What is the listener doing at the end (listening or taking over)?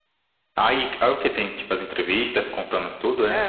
taking over